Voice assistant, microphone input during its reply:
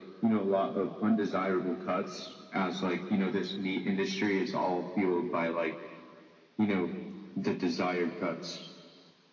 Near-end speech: none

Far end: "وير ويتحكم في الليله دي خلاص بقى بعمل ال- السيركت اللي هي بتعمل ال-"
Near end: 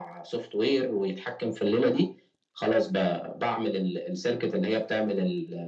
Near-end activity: none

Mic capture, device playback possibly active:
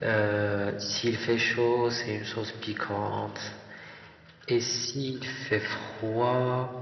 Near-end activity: none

